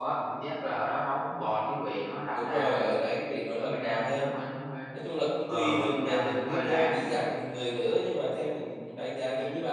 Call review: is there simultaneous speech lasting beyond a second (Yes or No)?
Yes